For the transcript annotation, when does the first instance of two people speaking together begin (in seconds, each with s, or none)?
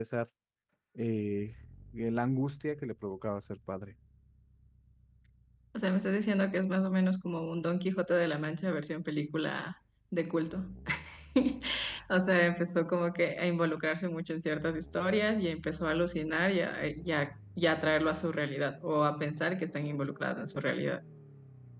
none